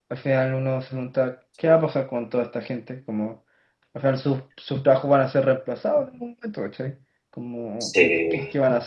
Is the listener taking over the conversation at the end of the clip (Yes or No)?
No